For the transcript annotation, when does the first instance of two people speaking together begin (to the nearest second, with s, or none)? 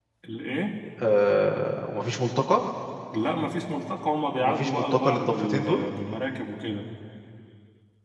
4 s